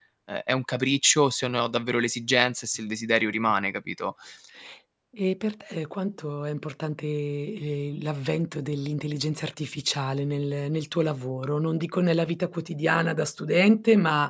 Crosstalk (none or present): none